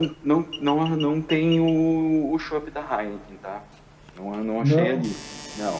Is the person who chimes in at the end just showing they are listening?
Yes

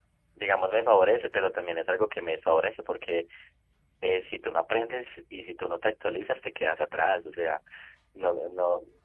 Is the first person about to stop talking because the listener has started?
No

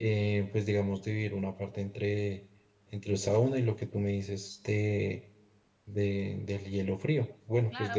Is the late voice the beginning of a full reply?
Yes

